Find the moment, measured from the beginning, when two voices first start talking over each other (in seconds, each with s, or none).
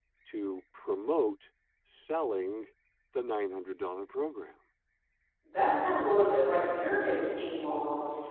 none